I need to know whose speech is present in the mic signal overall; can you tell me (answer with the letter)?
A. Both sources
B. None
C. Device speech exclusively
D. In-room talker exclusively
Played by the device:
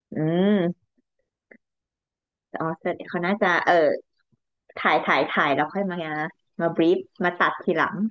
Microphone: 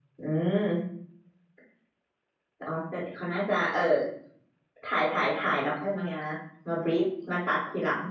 C